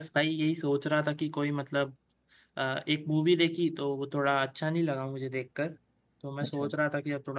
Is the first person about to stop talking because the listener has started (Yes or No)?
No